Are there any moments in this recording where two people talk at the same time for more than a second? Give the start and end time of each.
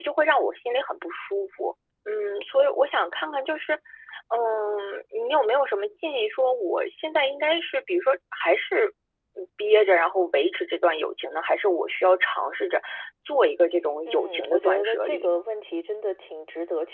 14.1-15.4

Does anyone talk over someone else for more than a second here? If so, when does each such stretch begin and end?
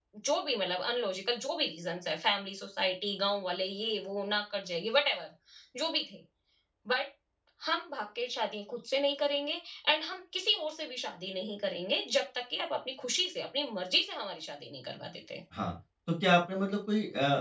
none

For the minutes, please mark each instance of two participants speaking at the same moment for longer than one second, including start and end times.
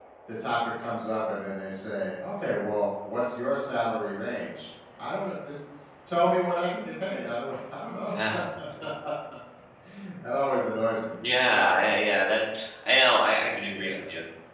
none

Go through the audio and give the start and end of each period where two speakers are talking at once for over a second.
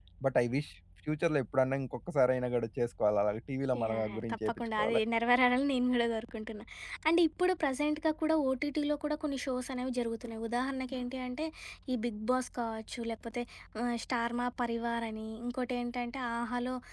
3.8-5.0

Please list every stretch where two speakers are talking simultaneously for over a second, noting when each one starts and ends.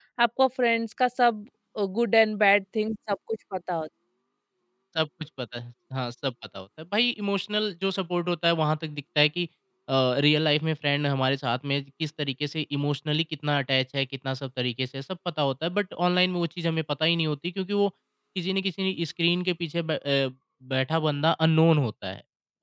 none

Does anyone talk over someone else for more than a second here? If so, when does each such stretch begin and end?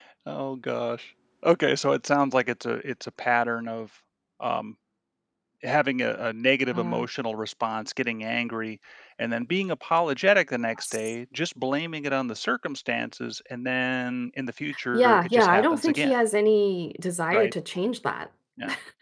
14.9-16.1

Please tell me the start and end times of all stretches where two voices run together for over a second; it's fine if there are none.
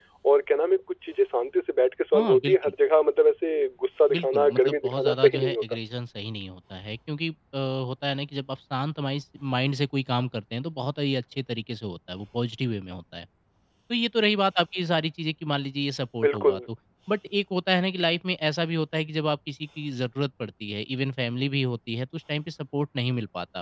4.1-5.6

